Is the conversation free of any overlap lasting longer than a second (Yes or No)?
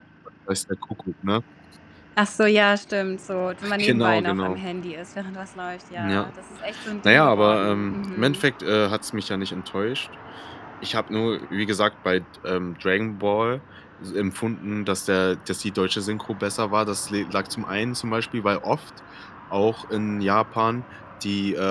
No